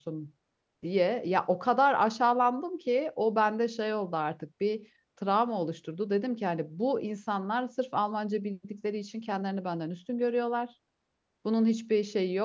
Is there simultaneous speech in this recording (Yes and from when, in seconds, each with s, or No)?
No